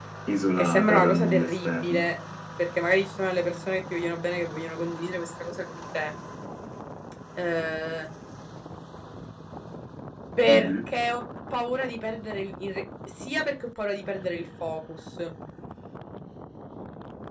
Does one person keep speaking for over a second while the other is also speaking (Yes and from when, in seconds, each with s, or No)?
Yes, from 0.7 s